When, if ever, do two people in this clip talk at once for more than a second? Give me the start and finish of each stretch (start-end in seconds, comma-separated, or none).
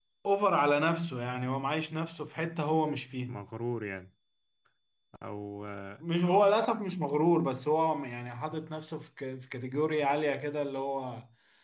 none